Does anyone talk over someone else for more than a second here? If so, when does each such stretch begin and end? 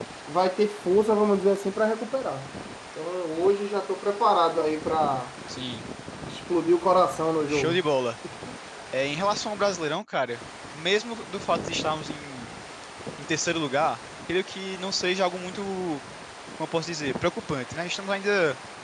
none

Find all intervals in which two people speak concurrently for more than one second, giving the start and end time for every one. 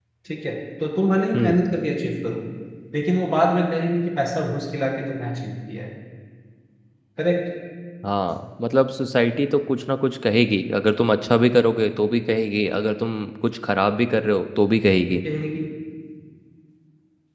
none

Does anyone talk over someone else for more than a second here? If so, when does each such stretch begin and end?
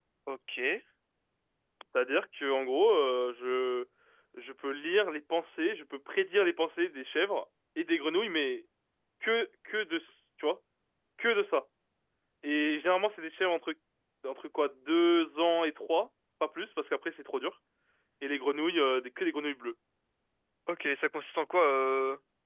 none

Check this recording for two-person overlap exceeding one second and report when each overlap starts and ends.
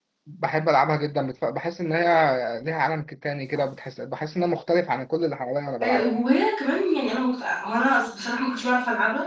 none

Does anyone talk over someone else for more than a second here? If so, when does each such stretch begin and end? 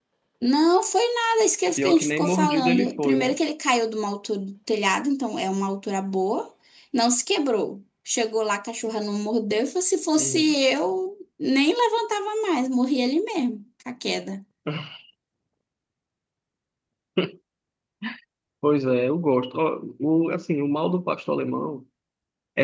1.8-3.4

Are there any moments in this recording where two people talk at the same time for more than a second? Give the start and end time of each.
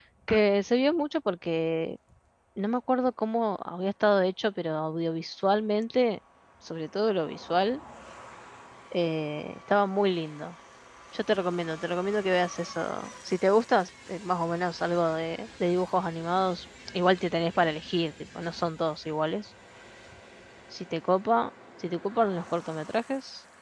none

